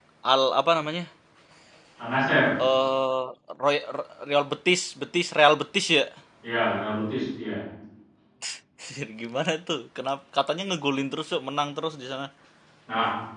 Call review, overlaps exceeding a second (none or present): none